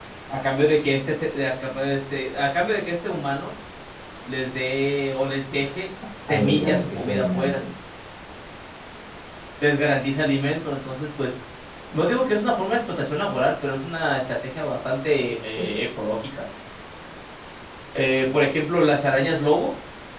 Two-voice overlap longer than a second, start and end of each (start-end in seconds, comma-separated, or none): 6.3-7.6